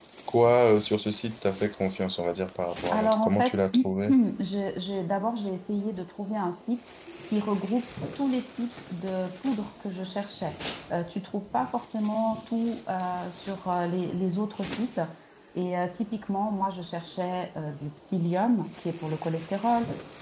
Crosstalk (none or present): present